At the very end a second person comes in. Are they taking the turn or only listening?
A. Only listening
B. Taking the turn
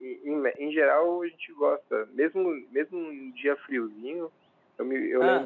A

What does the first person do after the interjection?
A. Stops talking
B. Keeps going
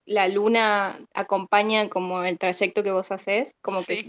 B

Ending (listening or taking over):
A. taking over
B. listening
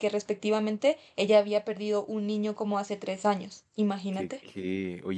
A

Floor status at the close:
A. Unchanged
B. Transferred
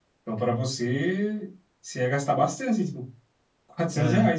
A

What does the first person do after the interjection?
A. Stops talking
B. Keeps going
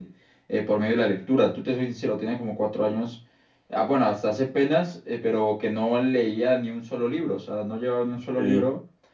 B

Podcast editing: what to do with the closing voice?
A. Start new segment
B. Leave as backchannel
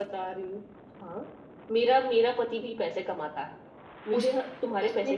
A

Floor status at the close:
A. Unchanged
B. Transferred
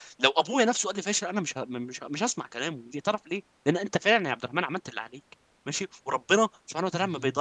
A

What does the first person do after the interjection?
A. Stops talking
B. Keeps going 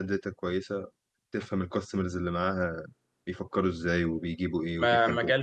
A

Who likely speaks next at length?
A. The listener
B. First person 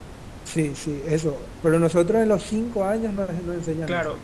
A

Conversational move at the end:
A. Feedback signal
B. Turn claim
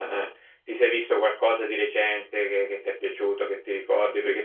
A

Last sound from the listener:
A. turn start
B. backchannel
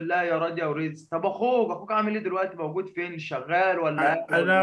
A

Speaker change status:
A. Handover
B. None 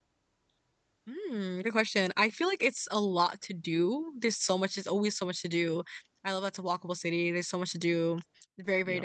B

